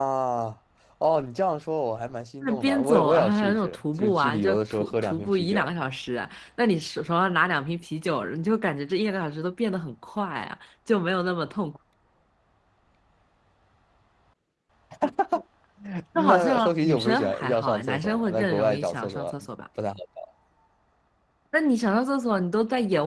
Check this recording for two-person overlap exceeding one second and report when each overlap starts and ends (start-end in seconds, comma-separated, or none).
2.4-5.7, 16.1-19.3